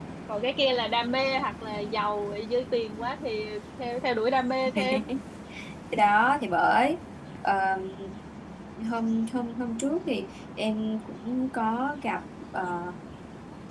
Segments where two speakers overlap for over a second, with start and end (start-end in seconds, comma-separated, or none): none